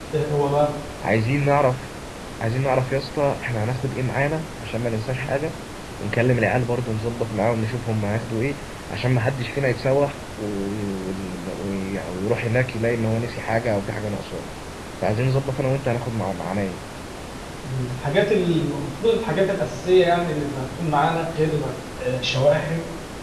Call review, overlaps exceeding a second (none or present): none